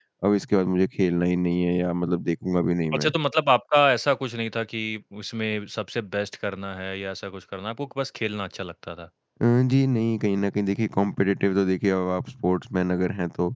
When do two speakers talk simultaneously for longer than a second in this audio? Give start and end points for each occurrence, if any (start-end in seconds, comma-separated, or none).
none